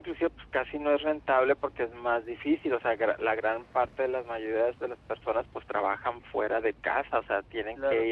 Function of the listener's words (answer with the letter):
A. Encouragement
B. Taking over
A